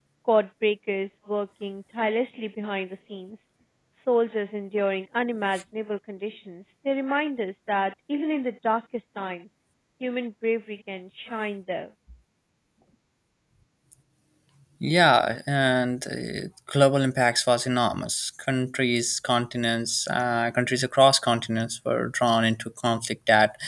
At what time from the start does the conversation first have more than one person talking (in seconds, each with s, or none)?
none